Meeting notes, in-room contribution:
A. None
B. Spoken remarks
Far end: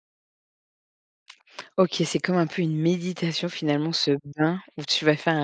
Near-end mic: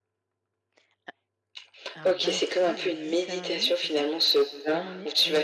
B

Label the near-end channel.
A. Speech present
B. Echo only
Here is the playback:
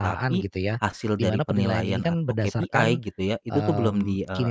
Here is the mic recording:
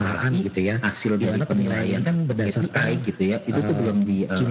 B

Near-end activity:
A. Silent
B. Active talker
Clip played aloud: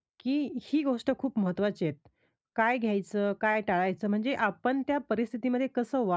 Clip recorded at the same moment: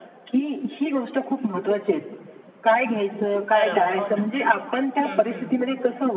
B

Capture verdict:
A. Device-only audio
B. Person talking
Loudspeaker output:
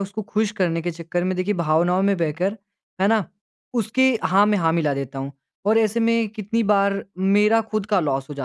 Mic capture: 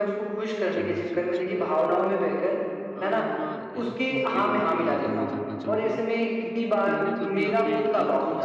B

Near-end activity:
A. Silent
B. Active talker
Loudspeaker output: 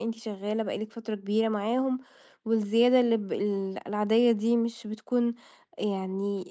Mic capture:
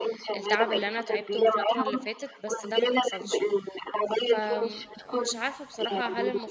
B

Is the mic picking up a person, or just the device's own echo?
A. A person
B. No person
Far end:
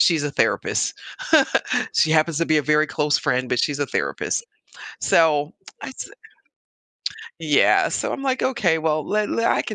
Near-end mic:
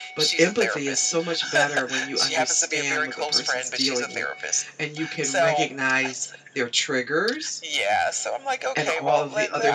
A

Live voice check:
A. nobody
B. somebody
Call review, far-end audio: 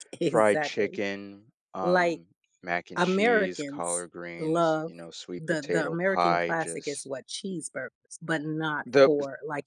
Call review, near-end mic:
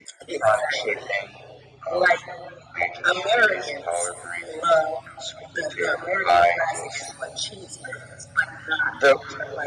A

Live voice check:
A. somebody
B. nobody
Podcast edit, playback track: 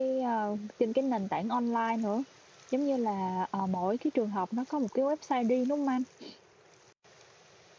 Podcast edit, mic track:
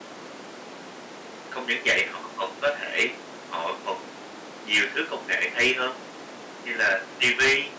A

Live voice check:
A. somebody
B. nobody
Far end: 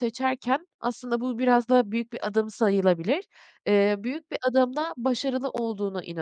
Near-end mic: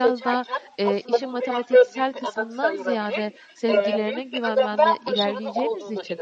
A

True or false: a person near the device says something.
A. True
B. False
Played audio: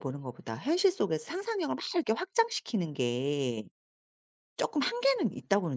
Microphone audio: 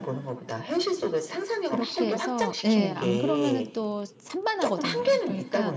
A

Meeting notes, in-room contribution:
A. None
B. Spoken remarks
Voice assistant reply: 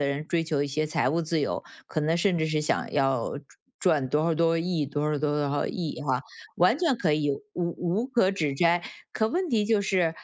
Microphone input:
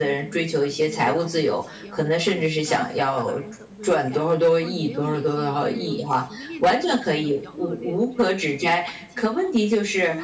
B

